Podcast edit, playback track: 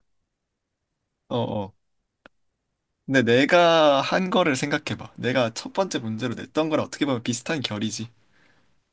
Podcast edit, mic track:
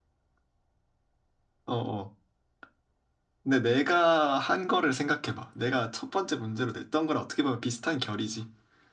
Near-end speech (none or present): none